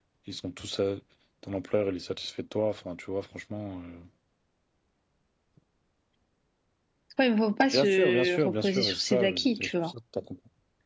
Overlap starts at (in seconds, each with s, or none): 7.7 s